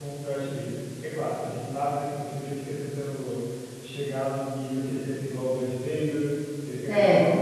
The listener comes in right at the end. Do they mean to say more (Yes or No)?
No